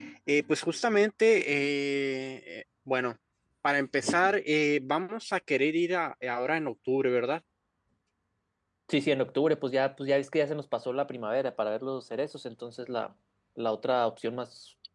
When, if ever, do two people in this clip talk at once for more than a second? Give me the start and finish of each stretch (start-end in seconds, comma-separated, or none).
none